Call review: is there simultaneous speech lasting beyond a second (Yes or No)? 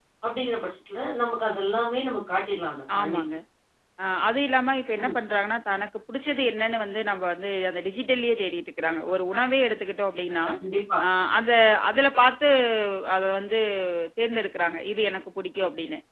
No